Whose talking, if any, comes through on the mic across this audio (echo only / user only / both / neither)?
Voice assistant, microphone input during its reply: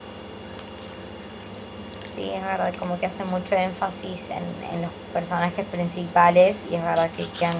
user only